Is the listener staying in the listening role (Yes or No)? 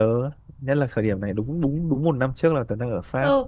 No